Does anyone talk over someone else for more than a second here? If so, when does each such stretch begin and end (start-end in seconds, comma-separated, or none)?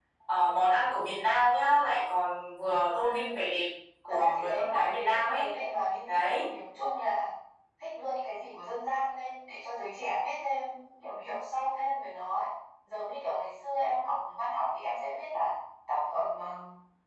4.1-5.4